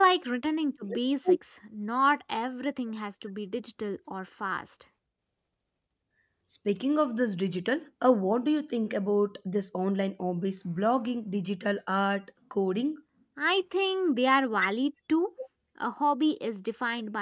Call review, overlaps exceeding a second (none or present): none